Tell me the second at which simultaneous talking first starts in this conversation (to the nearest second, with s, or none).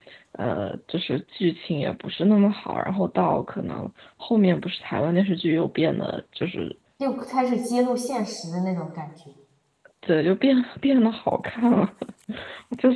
none